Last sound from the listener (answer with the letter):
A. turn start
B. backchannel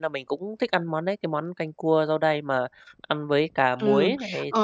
A